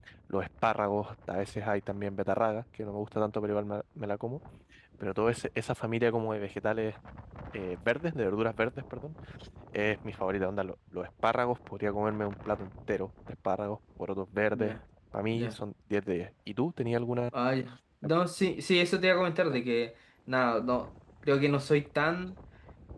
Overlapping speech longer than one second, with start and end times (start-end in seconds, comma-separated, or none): none